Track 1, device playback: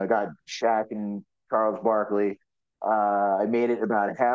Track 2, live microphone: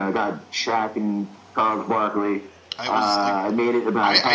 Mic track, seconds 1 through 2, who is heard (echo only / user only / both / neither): echo only